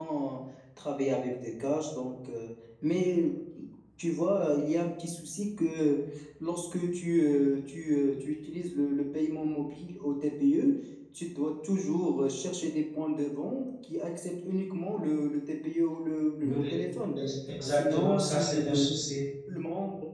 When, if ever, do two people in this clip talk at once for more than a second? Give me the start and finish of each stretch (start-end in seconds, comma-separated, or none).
17.6-18.9